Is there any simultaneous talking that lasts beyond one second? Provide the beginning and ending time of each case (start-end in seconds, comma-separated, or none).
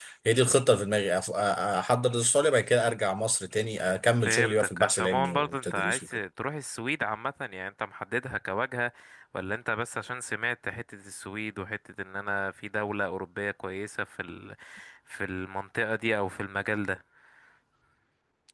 4.2-6.1